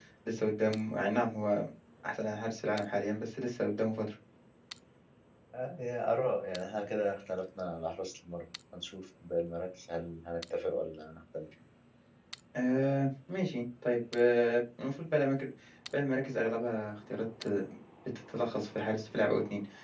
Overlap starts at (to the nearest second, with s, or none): none